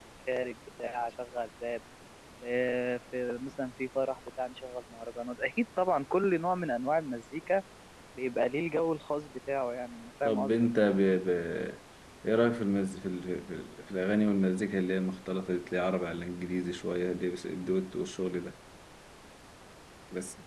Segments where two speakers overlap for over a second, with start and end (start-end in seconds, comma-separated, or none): none